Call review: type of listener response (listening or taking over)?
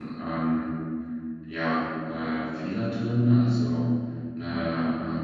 listening